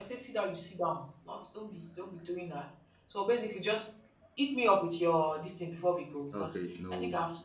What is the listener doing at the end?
taking over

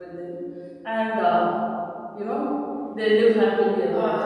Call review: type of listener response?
taking over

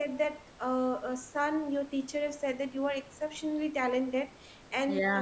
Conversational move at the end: listening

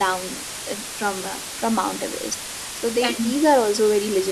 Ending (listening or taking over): listening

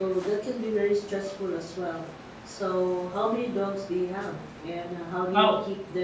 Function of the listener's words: listening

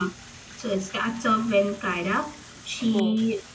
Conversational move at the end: listening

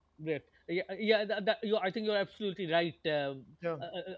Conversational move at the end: listening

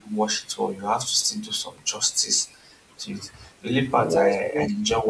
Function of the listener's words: listening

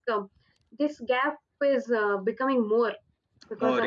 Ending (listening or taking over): taking over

